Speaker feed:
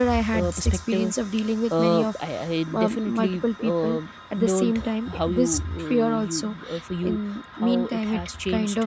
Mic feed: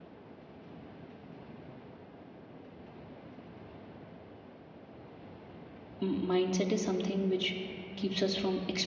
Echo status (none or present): none